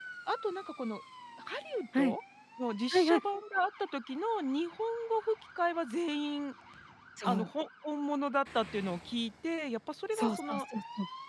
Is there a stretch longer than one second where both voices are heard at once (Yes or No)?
No